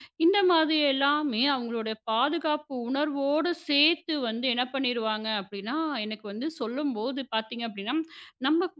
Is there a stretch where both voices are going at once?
No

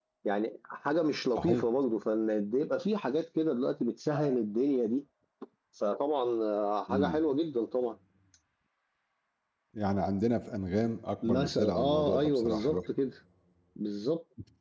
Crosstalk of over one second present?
Yes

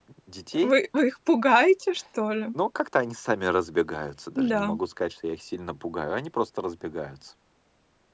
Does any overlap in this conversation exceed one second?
No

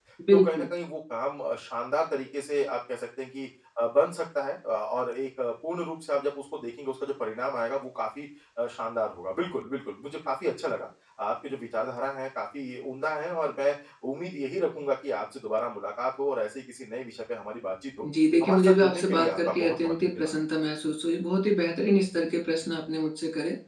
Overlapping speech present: Yes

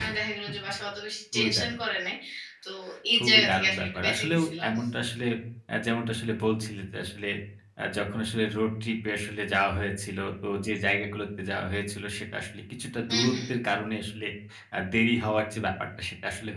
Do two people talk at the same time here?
Yes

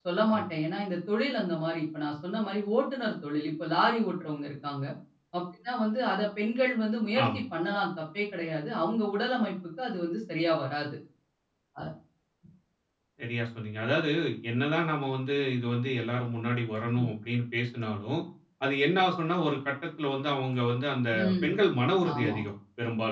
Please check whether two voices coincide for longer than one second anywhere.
No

